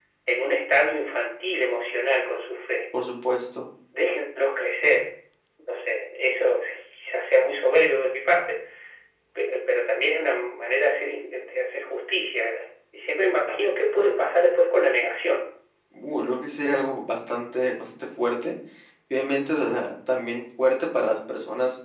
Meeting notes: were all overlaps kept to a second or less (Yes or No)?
Yes